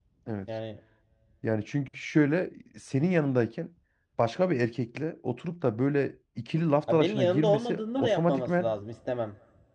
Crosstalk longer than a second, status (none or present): present